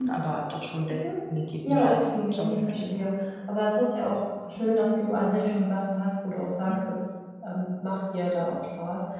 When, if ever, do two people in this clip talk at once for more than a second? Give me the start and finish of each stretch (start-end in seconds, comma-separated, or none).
1.7-3.2